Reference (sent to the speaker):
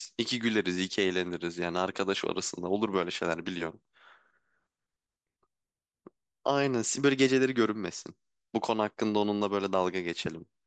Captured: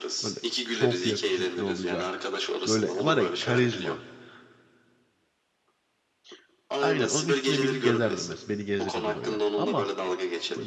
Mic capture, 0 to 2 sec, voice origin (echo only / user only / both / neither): both